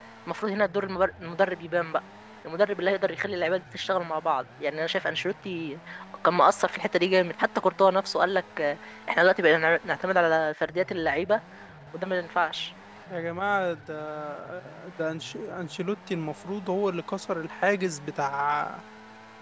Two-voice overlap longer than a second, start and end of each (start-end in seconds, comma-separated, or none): none